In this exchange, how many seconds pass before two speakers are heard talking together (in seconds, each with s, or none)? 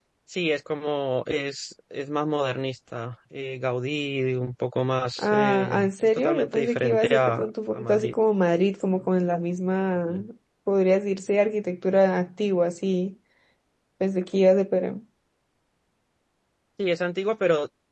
5.2 s